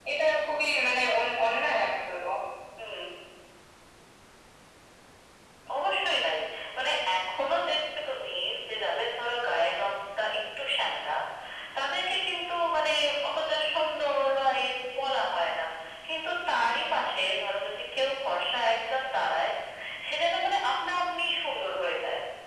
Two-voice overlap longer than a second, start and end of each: none

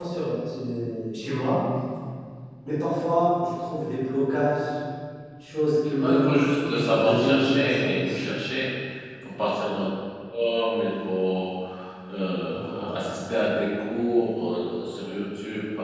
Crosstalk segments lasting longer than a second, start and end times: 6.0-7.9

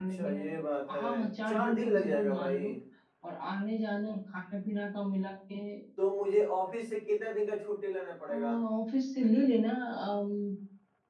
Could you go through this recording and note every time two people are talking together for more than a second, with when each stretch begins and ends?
1.5-2.7

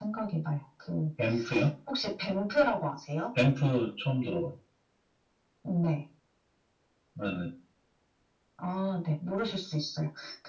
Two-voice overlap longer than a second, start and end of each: none

